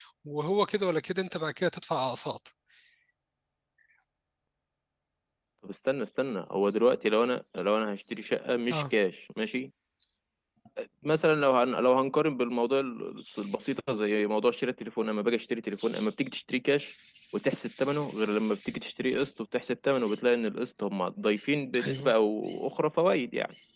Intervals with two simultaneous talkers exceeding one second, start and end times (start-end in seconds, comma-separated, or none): none